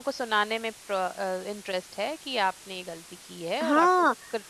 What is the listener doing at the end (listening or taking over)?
taking over